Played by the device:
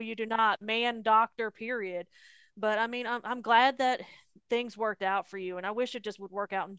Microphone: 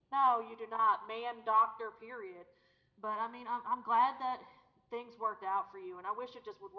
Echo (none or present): present